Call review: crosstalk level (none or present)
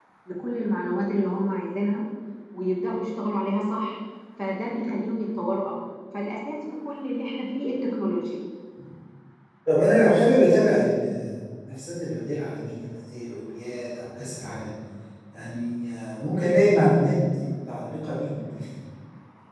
none